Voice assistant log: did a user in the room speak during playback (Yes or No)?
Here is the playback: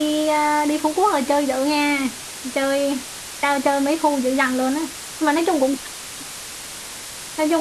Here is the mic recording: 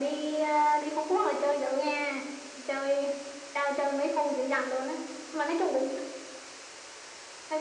No